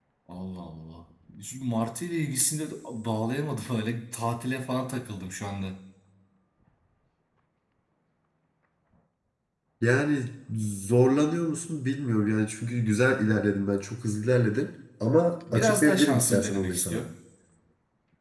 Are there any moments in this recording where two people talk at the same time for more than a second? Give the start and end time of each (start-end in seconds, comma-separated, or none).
15.5-17.1